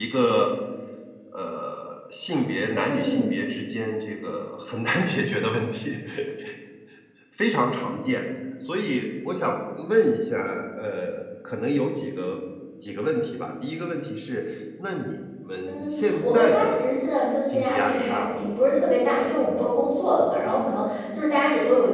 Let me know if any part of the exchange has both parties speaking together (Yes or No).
Yes